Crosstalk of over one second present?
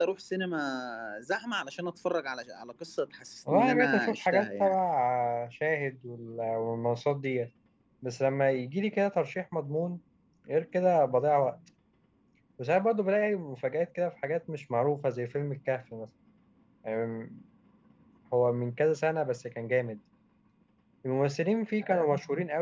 Yes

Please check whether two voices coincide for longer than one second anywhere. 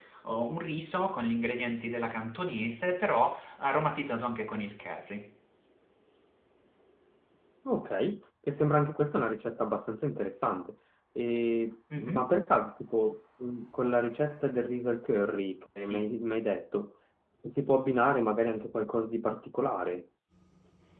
No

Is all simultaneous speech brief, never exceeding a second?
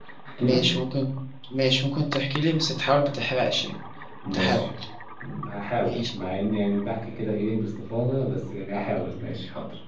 Yes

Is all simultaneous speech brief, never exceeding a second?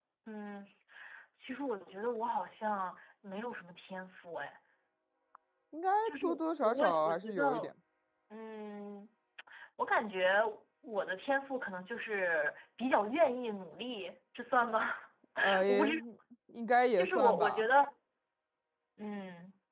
No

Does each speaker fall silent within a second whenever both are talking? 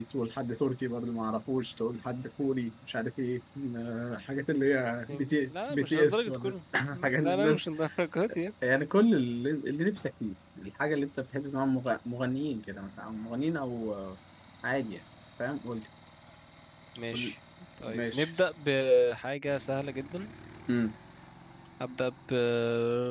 No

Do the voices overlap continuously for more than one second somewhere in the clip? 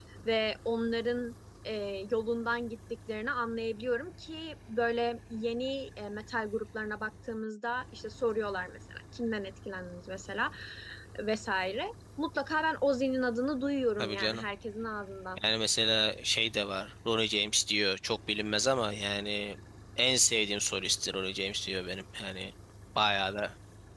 No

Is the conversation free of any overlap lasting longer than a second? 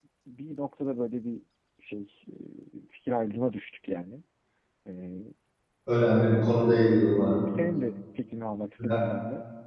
Yes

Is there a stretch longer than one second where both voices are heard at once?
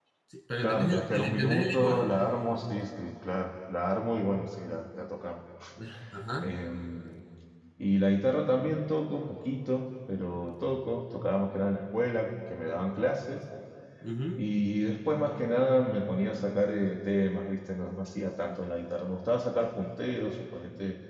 Yes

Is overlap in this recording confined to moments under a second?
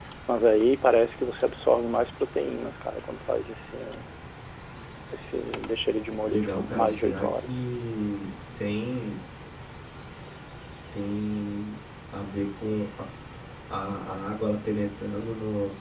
No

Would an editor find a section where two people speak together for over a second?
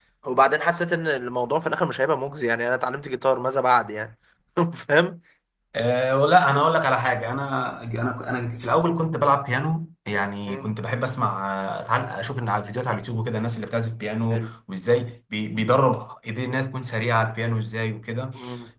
No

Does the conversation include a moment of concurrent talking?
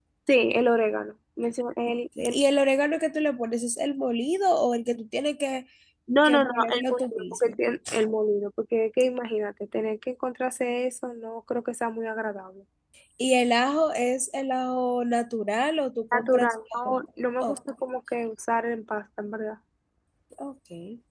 Yes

